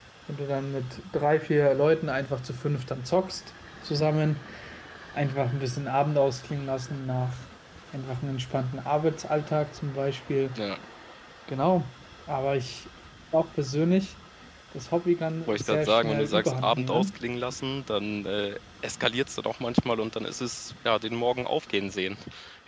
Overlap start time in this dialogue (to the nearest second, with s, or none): 15 s